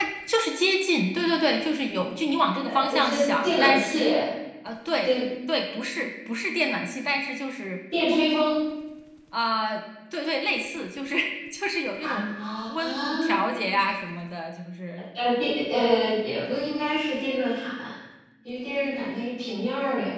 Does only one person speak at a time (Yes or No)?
No